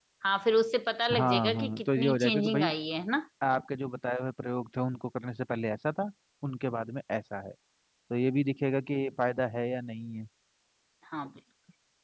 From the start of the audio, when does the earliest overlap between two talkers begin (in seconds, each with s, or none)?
1.2 s